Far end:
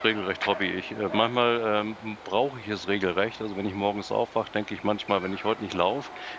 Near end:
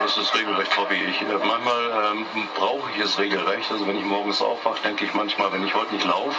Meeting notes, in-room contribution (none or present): none